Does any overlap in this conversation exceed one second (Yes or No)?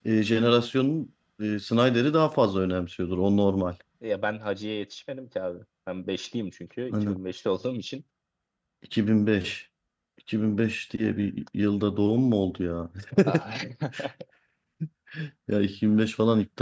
No